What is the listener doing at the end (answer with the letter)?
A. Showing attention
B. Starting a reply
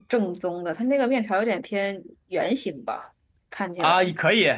B